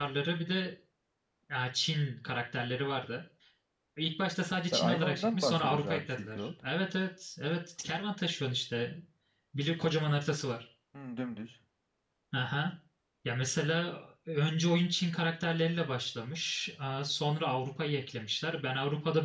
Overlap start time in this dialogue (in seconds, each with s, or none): 4.7 s